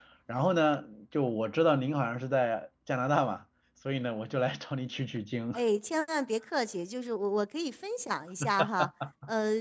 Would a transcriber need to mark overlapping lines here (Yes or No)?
No